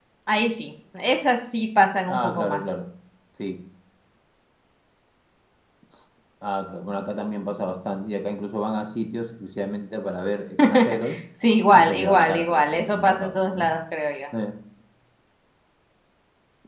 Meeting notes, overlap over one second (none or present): present